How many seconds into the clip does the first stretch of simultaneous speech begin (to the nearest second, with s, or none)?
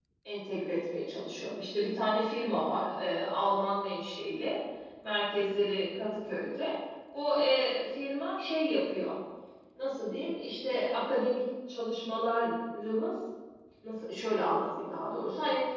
none